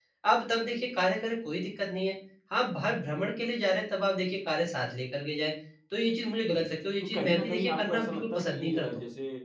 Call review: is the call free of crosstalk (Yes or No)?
No